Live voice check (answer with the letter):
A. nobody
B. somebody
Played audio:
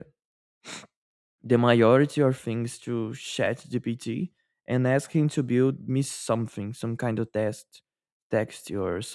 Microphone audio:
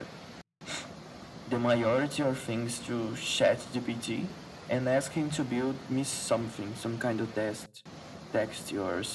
A